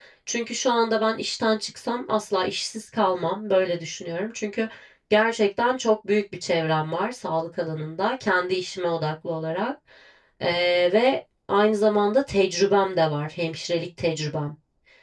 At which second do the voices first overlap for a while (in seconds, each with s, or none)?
none